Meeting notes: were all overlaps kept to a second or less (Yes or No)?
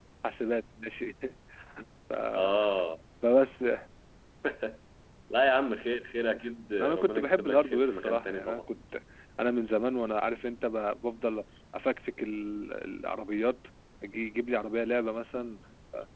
No